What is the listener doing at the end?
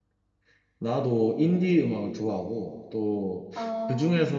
listening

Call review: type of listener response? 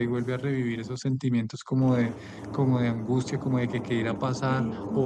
listening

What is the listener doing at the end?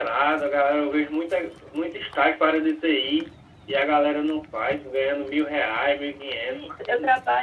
taking over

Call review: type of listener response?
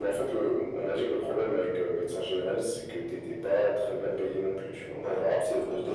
taking over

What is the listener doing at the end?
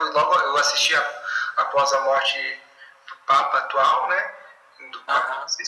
listening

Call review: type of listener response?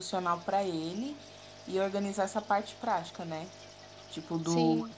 listening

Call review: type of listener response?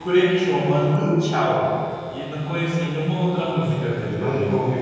taking over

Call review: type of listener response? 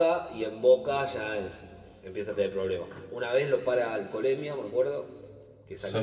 listening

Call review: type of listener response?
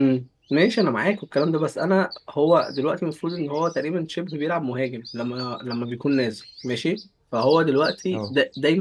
listening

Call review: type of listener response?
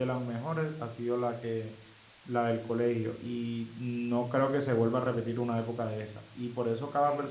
listening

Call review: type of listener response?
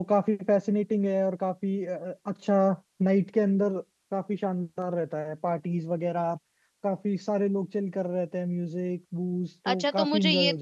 taking over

